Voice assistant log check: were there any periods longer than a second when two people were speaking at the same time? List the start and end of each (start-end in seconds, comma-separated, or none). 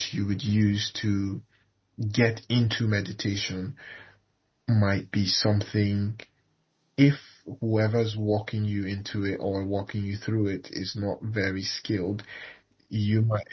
none